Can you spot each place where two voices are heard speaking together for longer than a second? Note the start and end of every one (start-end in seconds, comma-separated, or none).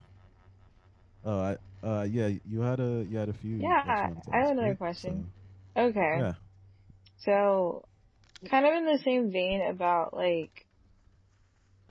3.6-5.2